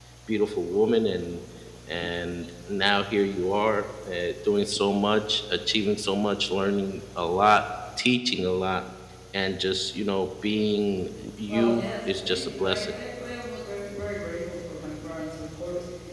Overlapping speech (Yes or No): Yes